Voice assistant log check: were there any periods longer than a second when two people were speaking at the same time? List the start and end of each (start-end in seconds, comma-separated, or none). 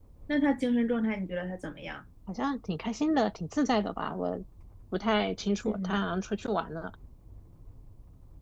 none